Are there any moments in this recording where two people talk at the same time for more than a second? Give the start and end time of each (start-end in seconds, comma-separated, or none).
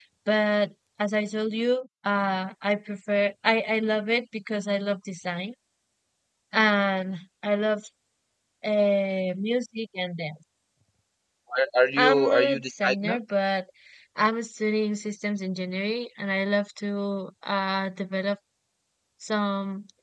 12.0-13.2